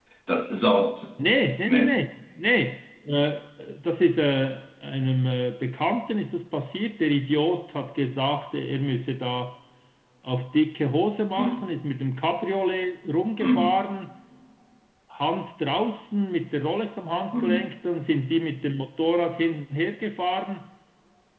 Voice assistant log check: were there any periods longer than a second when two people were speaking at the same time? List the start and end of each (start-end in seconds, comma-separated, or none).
none